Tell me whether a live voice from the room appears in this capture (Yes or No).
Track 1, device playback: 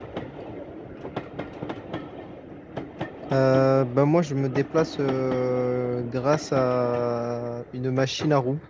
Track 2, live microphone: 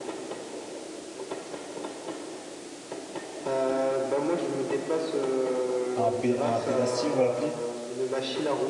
Yes